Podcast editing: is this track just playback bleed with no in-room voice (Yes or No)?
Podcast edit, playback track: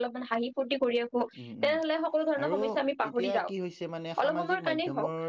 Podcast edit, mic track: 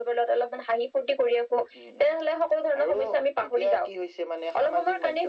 Yes